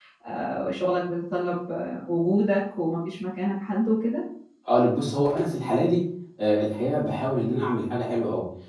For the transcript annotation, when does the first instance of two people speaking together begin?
none

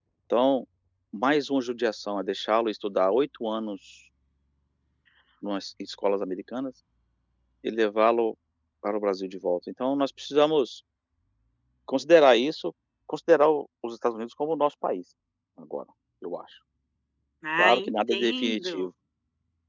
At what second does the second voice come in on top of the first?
18 s

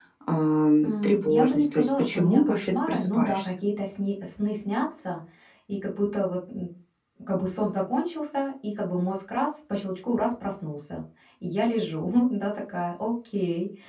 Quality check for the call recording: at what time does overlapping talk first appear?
1 s

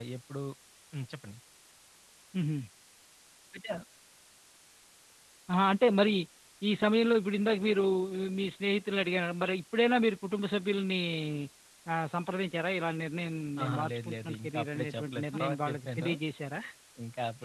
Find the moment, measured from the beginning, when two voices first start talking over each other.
14 s

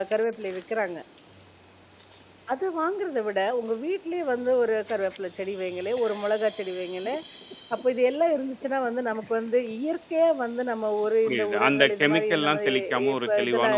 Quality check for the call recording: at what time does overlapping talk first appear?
11 s

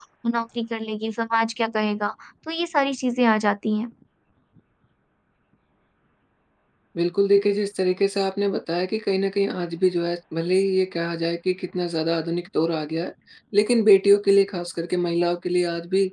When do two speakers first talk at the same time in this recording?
none

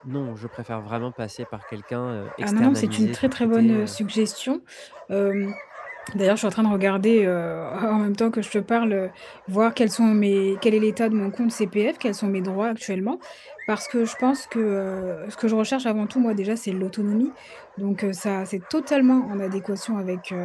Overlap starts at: 2 s

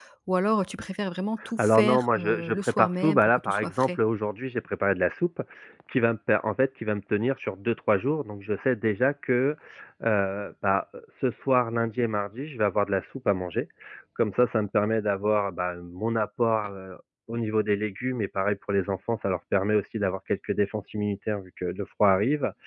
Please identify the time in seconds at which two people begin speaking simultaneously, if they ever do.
1 s

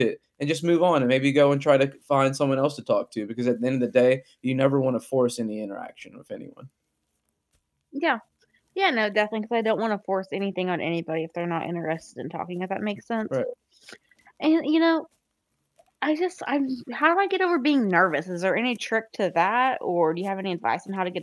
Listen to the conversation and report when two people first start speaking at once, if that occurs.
none

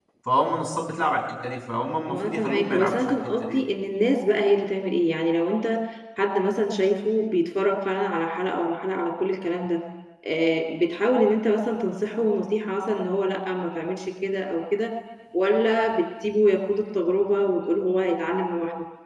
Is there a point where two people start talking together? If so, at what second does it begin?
2 s

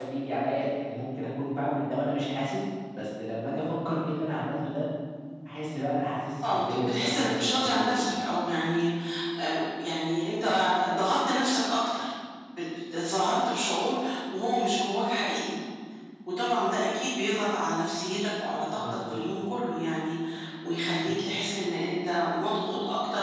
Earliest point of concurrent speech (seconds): 7 s

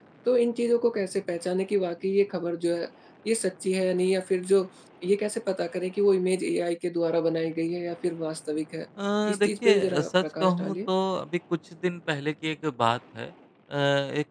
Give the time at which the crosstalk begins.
9 s

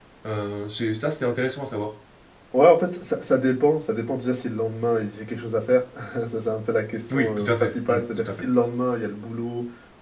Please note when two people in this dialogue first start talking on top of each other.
7 s

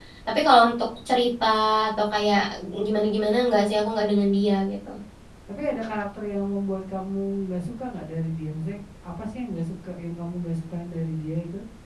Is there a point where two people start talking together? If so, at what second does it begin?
none

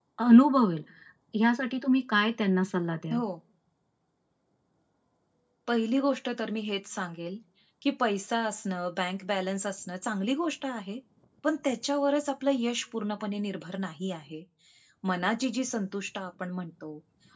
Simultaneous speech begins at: none

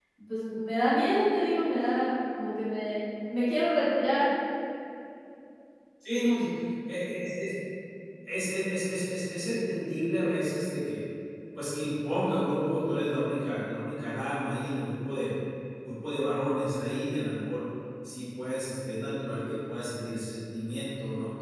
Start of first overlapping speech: none

